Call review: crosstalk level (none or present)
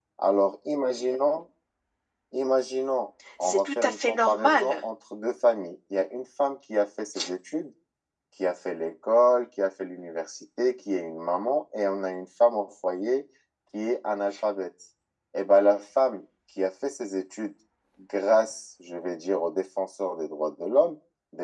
present